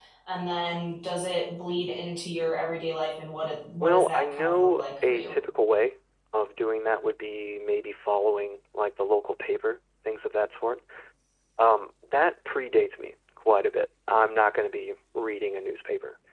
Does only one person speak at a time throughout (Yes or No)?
No